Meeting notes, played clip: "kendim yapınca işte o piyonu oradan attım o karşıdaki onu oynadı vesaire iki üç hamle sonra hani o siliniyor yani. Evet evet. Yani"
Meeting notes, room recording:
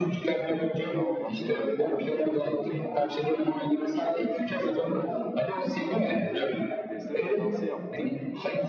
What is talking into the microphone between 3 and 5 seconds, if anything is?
both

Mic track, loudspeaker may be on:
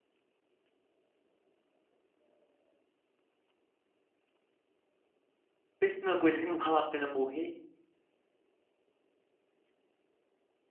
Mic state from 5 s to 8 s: user only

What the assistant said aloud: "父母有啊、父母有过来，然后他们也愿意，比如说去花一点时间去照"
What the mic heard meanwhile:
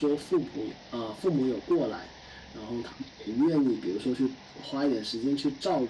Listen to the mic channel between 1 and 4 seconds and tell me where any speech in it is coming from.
echo only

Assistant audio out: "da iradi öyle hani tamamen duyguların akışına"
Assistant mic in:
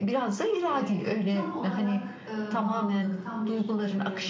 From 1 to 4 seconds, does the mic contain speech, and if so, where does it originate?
both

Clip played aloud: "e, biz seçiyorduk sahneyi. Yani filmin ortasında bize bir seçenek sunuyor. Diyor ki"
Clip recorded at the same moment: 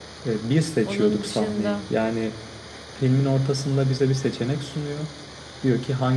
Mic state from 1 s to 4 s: both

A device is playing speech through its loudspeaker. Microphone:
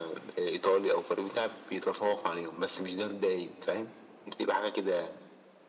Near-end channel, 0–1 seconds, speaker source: echo only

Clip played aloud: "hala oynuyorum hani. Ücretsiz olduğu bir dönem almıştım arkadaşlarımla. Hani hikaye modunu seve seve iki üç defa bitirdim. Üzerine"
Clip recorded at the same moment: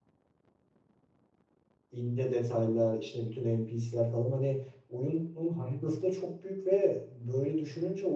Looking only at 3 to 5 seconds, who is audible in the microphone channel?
user only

